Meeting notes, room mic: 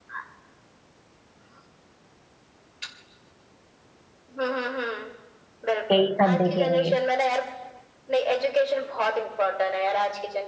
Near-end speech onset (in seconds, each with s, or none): 5.9 s